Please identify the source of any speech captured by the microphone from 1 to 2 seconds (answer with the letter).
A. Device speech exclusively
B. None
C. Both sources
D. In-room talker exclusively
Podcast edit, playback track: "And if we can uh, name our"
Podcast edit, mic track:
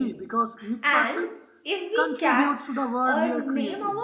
C